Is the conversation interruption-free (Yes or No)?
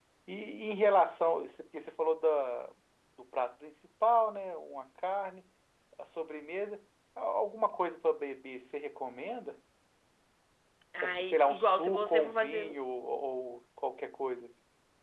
No